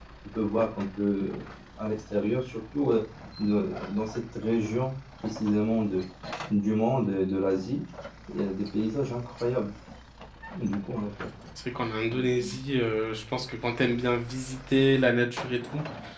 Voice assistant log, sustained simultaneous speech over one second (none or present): none